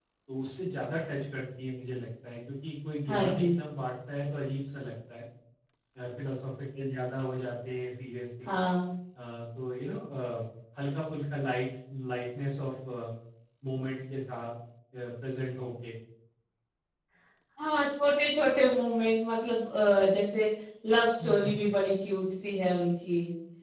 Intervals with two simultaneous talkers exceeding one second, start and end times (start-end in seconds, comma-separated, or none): none